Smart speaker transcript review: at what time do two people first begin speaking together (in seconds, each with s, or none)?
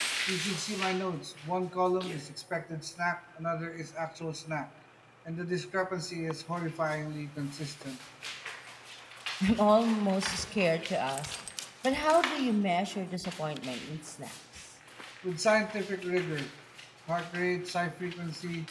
none